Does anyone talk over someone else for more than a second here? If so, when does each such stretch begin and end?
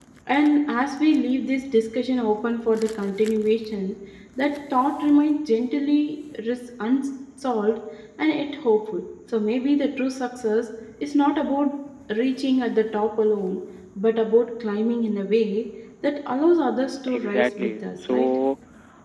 17.1-18.3

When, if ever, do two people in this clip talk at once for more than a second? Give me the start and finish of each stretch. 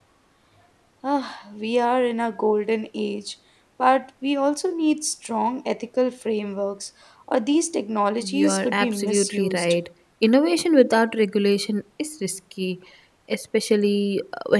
8.2-9.8

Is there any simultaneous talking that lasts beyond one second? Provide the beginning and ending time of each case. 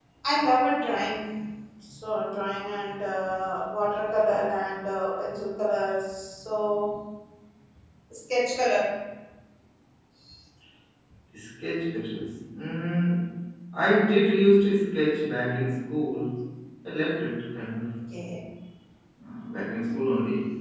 none

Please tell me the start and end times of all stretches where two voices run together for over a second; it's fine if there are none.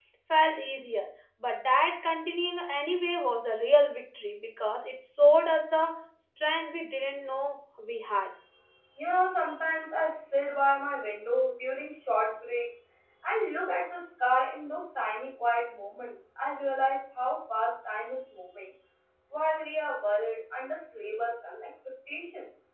none

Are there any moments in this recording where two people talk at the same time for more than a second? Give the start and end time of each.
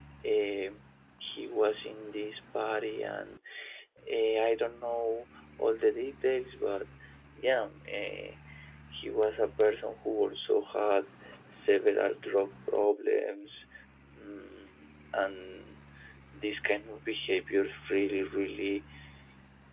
none

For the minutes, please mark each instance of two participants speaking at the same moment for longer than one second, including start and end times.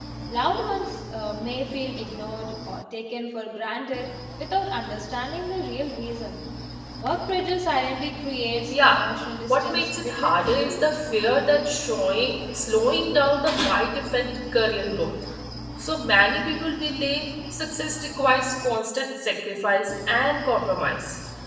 9.5-10.8

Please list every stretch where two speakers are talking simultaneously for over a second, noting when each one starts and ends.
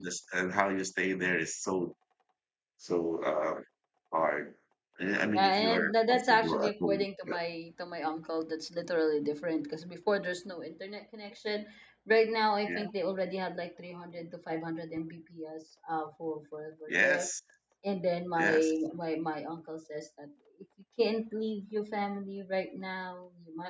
5.4-7.3

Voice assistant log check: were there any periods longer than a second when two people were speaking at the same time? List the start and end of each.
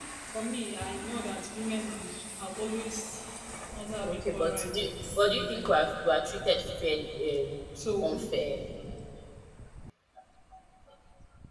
4.0-5.7

